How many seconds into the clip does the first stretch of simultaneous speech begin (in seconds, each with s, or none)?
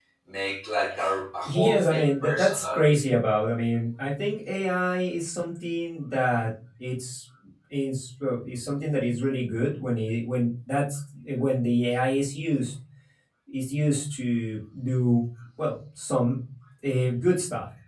1.4 s